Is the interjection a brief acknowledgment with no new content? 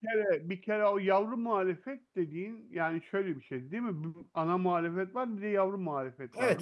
No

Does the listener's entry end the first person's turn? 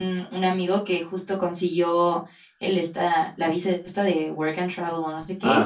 No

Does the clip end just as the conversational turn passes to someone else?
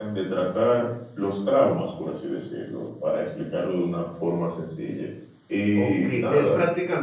Yes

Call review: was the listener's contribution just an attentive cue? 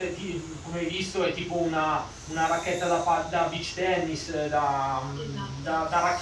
Yes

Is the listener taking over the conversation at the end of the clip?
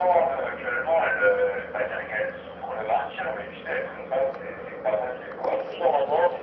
Yes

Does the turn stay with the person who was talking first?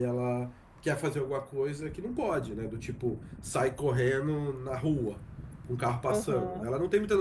Yes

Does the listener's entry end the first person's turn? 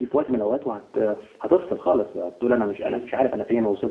No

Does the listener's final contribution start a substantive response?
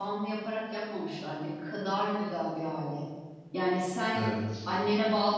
No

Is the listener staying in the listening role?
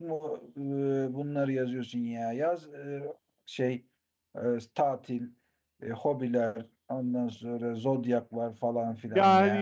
No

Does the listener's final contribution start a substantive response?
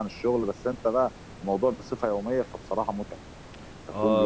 Yes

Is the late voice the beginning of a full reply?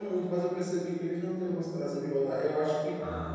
No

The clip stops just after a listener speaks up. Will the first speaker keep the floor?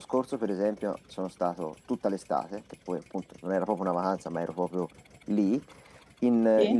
Yes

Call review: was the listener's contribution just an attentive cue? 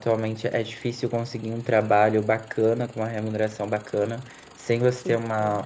Yes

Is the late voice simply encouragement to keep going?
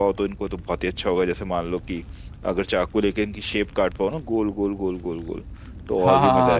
No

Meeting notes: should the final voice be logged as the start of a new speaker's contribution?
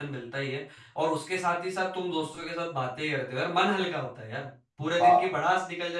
No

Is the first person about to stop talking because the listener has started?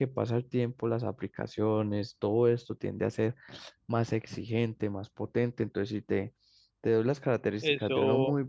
No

